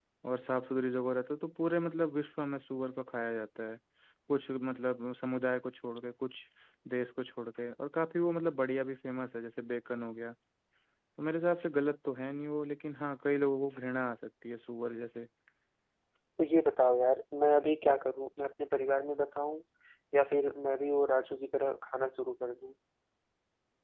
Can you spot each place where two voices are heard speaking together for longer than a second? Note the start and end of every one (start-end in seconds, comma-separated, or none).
none